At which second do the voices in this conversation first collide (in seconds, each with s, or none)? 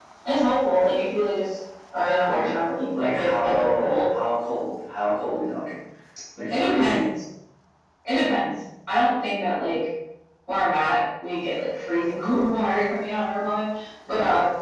2.3 s